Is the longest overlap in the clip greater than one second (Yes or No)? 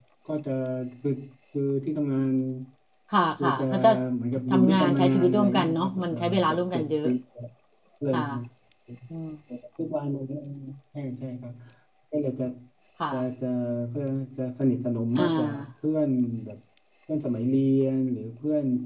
Yes